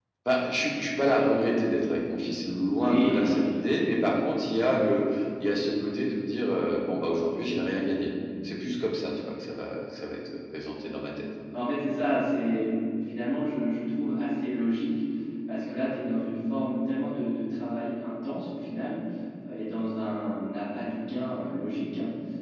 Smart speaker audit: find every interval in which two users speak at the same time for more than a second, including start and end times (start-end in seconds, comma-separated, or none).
2.8-4.0